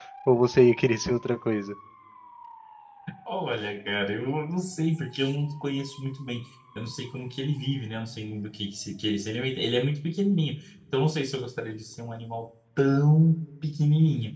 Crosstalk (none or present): none